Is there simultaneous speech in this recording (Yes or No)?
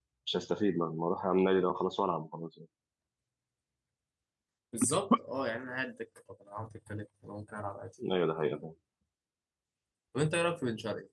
No